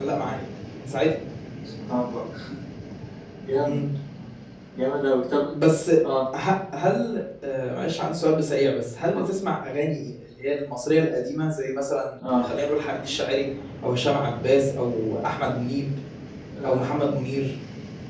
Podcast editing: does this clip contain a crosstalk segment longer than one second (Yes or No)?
No